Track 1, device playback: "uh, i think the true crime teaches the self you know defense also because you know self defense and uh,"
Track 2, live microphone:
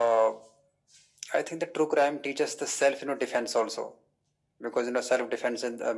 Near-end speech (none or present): none